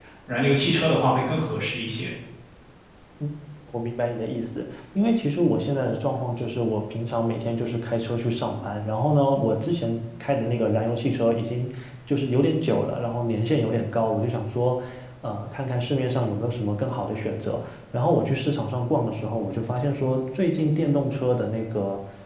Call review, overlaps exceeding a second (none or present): none